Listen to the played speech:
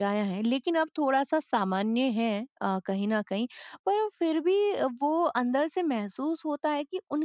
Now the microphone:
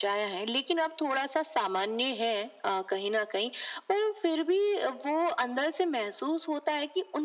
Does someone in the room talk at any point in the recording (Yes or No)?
No